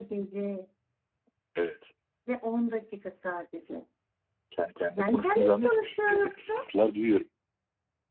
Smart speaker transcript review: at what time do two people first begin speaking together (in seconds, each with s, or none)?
5.0 s